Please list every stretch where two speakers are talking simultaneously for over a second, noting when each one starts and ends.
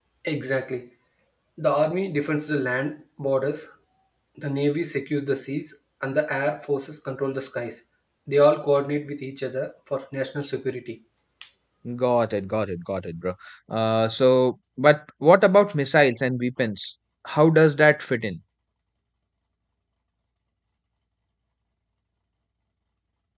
none

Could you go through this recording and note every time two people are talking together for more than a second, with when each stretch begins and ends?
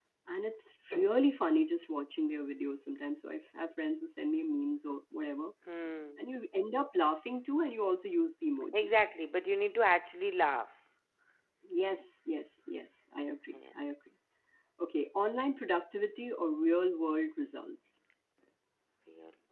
none

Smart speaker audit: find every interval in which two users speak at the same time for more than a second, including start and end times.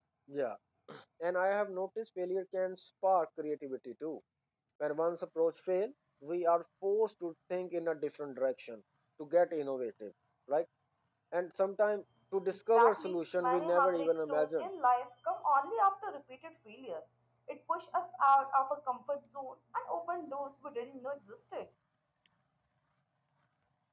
12.7-14.7

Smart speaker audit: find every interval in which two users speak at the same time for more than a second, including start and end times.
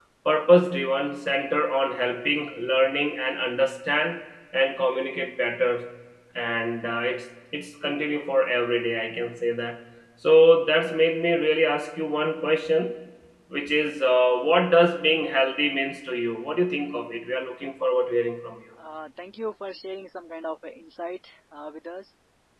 none

